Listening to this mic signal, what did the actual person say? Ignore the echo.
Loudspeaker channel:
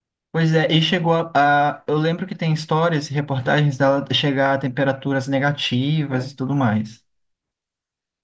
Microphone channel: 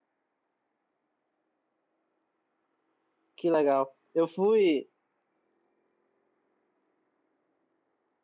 Que legal. Eu fui.

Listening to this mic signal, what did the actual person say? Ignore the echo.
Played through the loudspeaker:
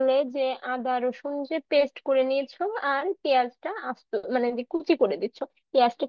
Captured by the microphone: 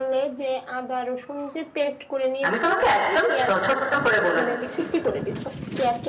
আমি তোমাকে একদম ছ- ছোট্ট করে বলে দিচ্ছি

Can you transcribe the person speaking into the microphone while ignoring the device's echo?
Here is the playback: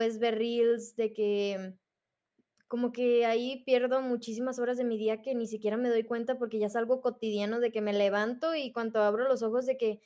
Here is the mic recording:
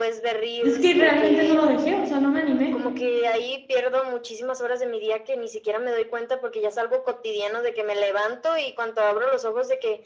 Es que realmente no lo dejé, o sea, no me animé.

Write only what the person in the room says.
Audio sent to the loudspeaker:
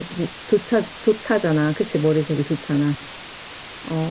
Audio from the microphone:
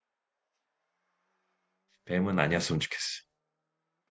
뱀은 아니었으면 좋겠어.

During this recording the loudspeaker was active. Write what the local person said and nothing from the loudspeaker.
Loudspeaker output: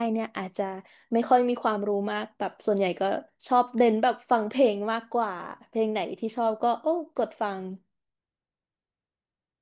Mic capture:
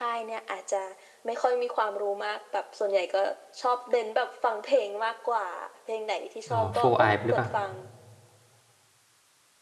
อ๋อ Four Eye หรือเปล่า

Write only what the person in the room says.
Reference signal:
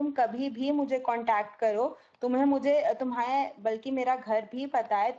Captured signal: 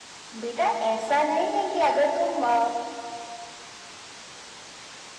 बेटा ऐसा नहीं है कि अगर तुम अ,

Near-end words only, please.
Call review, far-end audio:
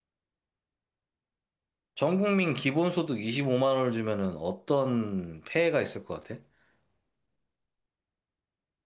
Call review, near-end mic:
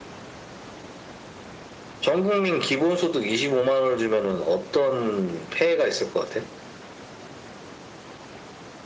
none

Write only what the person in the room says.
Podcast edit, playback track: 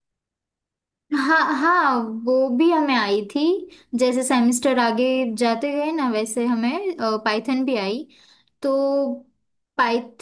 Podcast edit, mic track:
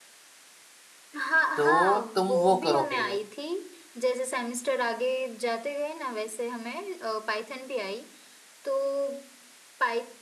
तो तुम वो करो पहले

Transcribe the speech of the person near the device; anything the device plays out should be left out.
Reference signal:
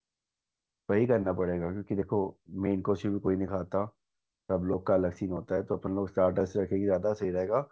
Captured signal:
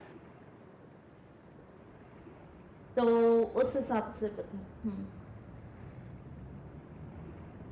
तो उस हिसाब से बता हम्म

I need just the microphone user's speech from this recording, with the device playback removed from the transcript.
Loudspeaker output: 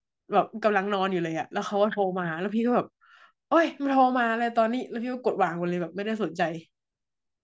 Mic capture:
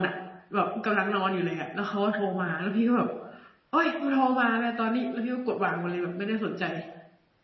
none

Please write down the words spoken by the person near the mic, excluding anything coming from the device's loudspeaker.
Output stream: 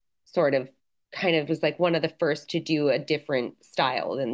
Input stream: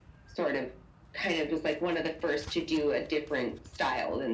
none

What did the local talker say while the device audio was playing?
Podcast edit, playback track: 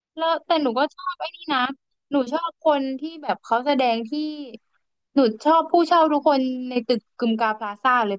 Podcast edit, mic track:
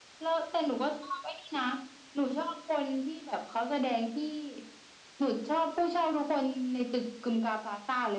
none

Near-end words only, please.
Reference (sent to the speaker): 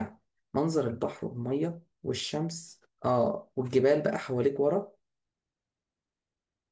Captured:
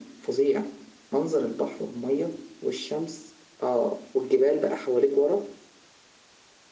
none

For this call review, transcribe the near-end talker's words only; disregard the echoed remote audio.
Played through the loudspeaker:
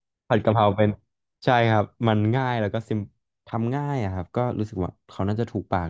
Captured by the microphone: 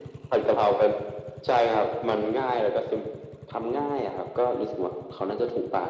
none

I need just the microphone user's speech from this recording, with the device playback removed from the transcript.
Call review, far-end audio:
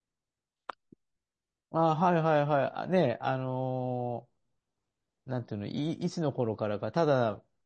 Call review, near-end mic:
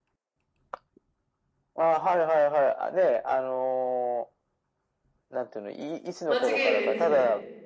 間違いないですね。

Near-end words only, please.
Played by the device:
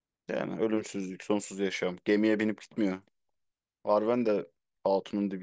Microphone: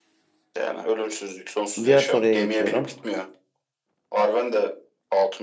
Diğer soruya geçiyorum.

